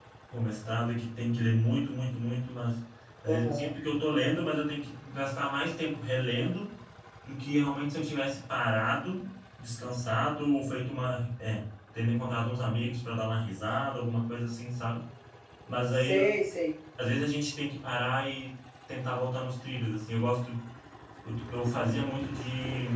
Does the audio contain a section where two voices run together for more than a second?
No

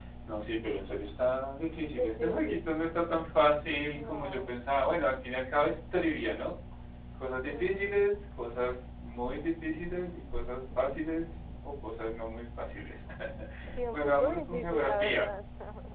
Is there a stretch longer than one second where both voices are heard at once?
Yes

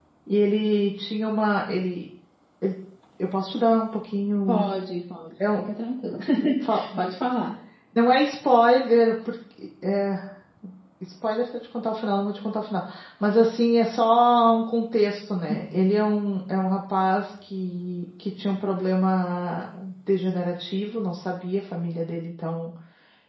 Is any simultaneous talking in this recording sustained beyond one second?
No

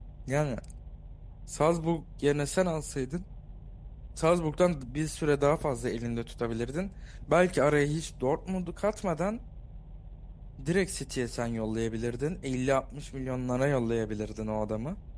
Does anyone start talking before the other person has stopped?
No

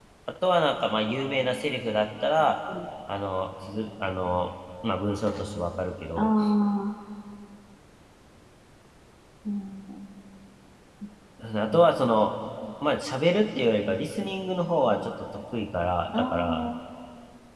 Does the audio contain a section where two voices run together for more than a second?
No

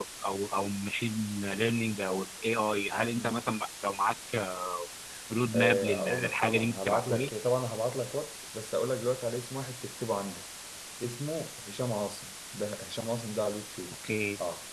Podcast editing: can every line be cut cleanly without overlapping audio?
No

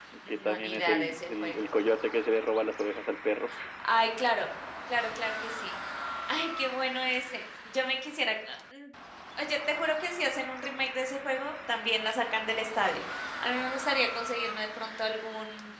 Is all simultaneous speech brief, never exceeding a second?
No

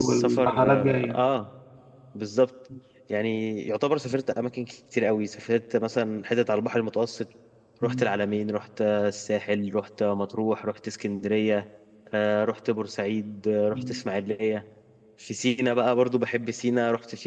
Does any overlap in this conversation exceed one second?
Yes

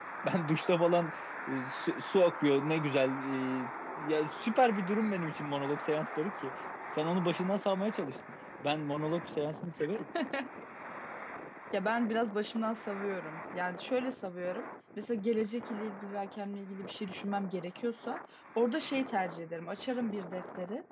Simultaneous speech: No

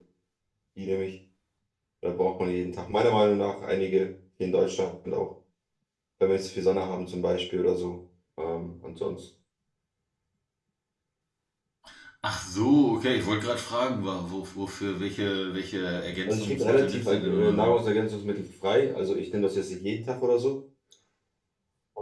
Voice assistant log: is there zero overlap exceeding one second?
No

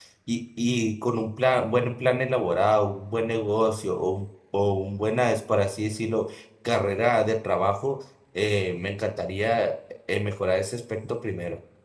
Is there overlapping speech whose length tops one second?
No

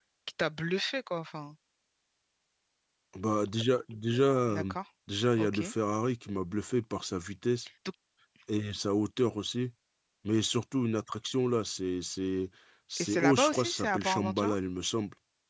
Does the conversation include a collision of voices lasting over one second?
Yes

